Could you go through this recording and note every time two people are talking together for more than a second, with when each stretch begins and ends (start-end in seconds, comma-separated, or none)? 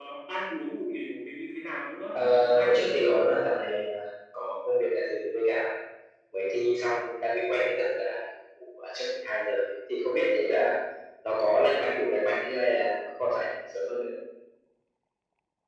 2.1-3.3